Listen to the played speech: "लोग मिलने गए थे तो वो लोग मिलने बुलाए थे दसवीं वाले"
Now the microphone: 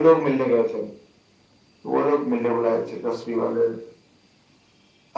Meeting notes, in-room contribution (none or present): none